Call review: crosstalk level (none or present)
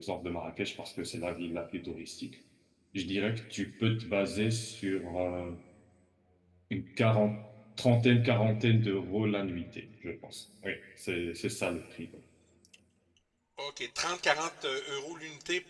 none